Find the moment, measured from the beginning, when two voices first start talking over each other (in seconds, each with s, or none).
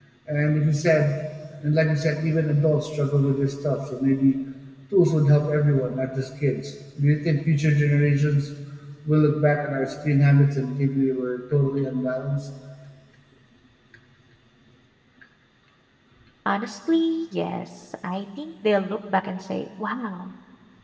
none